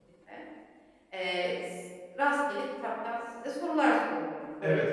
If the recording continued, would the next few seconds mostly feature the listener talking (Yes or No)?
Yes